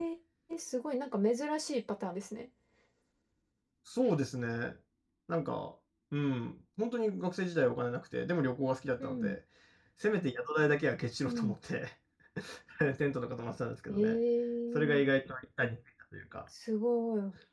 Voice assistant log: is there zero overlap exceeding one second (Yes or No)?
Yes